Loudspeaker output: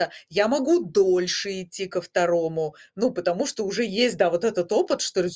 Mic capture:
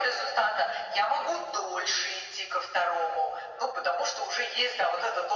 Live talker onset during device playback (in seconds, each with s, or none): none